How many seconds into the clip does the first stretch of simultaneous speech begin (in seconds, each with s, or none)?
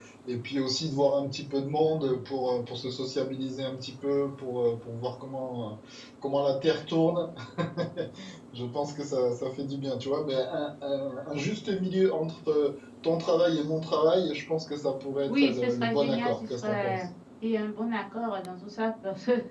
15.3 s